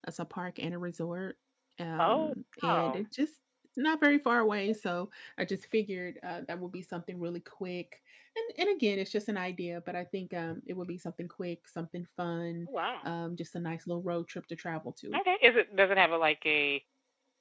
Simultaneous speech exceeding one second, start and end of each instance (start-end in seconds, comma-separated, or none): none